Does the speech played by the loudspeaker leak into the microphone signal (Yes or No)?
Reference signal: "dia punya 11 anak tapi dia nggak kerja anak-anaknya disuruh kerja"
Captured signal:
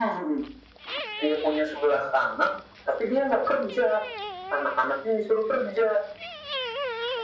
Yes